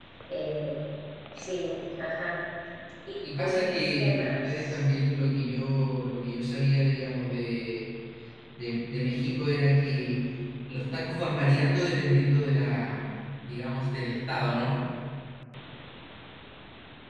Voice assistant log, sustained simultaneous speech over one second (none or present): present